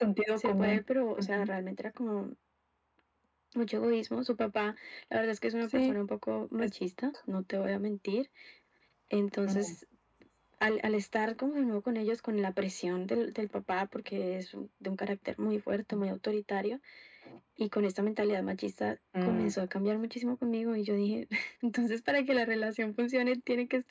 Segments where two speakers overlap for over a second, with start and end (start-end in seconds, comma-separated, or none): none